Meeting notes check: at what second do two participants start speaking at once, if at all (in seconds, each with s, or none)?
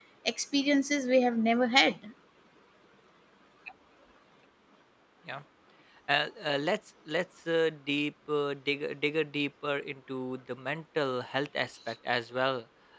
none